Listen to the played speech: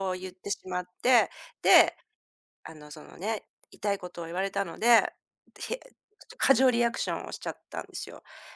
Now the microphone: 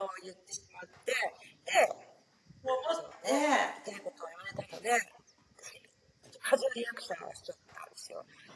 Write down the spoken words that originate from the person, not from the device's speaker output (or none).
うと思って、